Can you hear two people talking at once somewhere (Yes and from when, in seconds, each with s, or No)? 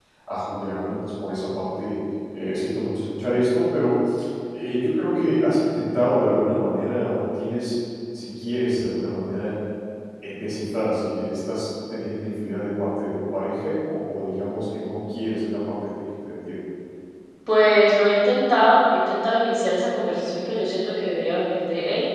No